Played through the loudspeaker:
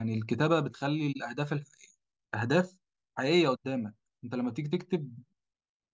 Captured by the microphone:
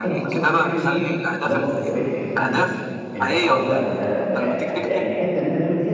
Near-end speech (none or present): present